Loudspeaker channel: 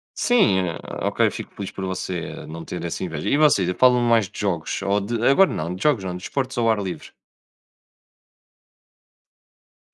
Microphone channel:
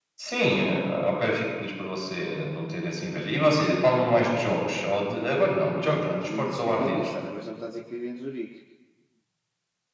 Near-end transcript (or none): Meu amigo disse que vivia em Lausana, agora já me está a dizer que vive em Zurique.